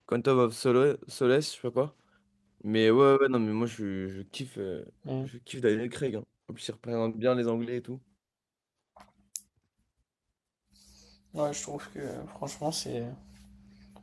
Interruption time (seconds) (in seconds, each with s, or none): none